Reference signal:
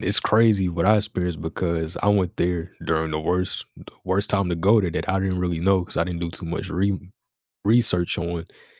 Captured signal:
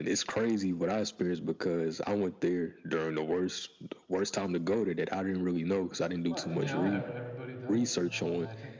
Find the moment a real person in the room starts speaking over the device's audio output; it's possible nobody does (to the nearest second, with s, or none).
6 s